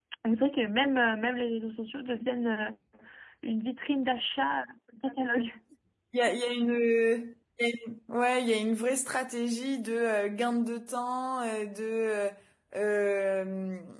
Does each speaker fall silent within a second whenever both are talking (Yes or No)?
Yes